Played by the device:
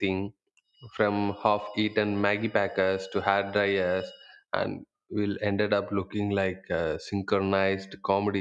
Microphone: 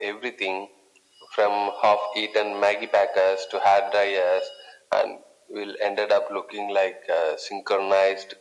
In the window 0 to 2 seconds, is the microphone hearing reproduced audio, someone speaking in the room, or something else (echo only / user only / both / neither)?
echo only